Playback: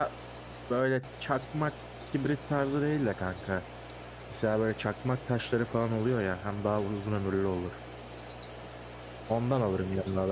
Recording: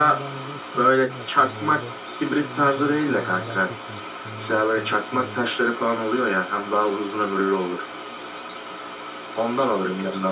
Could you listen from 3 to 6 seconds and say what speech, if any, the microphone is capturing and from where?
both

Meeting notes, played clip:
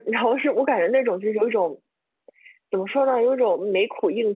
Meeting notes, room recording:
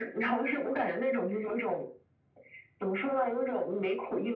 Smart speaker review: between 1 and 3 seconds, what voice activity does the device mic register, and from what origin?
echo only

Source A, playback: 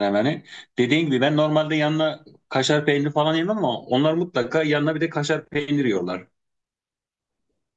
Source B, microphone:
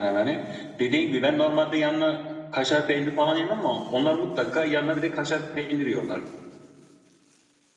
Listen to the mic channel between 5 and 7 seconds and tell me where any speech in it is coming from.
echo only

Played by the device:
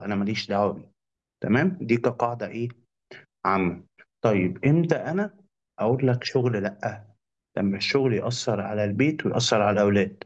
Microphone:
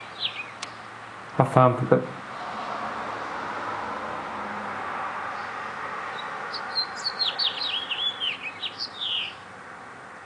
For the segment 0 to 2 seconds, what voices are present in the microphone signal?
user only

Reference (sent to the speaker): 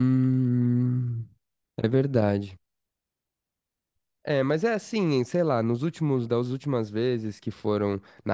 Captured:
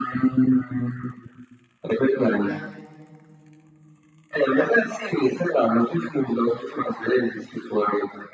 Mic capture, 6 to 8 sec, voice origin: echo only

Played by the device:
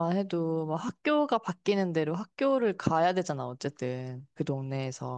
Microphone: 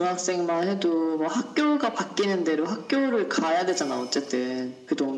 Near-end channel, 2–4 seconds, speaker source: echo only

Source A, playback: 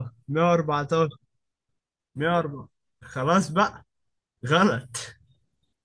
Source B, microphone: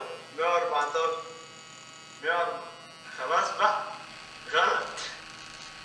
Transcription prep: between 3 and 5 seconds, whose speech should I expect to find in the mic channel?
echo only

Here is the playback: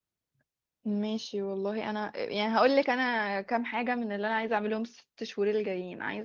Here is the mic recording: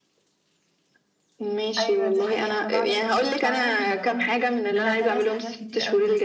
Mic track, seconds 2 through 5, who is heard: both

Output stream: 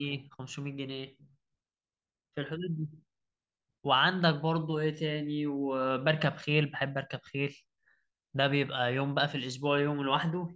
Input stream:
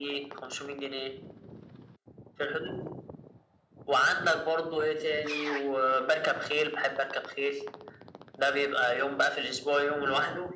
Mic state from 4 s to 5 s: echo only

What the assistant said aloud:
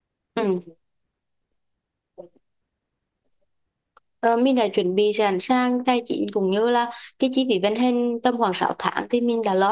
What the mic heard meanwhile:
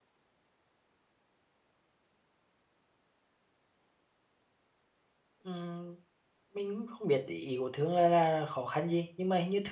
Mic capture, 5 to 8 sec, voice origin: user only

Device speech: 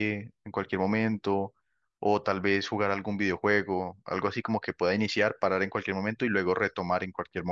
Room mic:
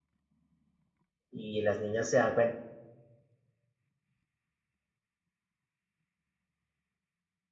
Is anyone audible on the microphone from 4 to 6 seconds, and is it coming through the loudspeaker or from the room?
neither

